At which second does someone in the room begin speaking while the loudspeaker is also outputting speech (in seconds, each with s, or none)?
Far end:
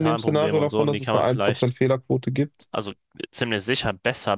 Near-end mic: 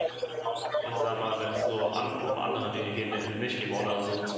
0.8 s